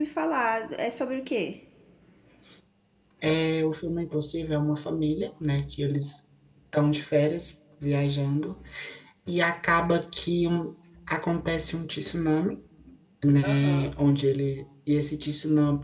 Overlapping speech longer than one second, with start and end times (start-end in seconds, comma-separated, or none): none